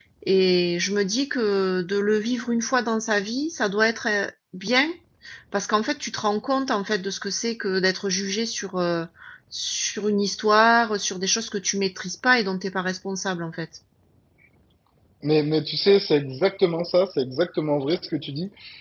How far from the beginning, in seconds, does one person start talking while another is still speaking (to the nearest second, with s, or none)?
none